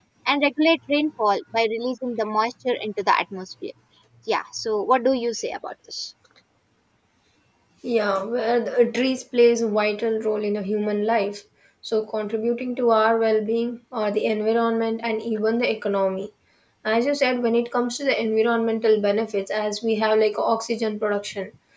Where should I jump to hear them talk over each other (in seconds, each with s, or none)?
none